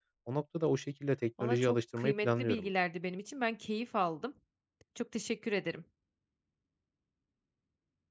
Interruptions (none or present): present